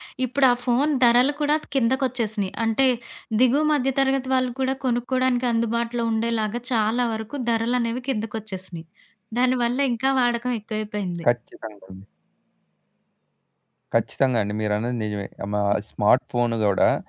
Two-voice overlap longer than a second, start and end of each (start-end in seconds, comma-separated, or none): none